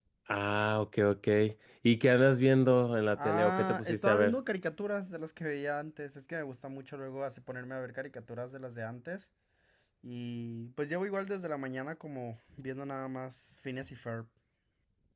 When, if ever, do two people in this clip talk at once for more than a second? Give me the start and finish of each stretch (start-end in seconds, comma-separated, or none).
3.1-4.4